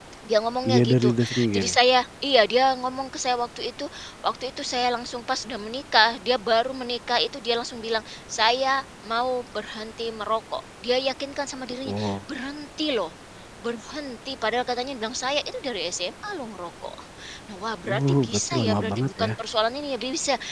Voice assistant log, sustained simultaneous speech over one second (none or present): present